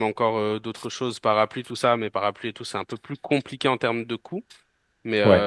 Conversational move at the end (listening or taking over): listening